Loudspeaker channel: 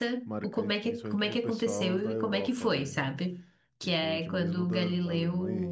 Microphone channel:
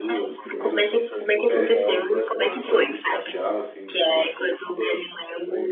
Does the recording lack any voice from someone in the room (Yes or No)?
No